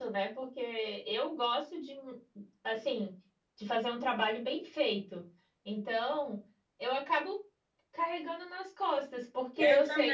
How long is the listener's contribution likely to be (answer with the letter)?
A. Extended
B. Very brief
B